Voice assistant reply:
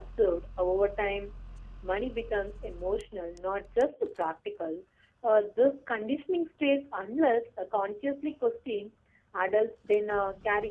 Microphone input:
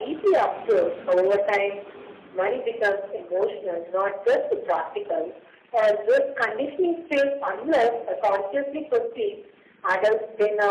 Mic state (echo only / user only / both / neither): echo only